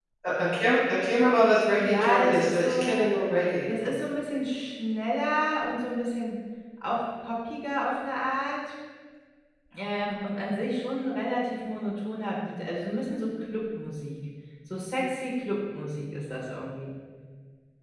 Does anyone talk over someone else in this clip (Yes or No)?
Yes